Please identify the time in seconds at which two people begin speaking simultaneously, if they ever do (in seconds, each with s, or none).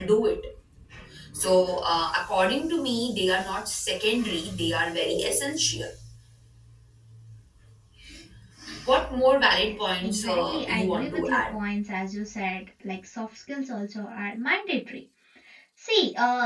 9.7 s